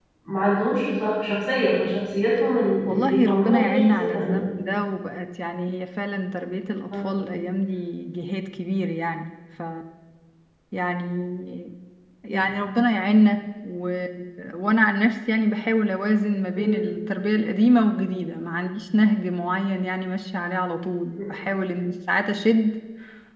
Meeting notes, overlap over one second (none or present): present